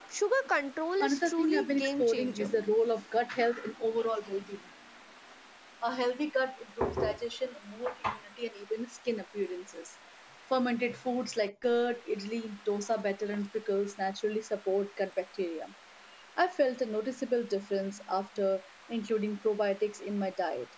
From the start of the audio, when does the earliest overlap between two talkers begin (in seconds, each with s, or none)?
1.0 s